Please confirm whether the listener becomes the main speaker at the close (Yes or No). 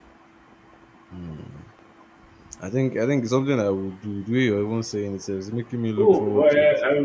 Yes